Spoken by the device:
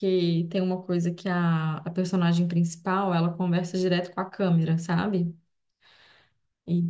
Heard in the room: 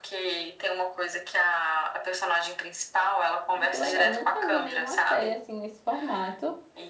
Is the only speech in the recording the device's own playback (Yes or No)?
No